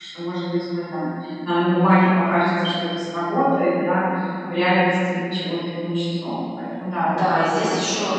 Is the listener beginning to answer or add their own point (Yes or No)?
Yes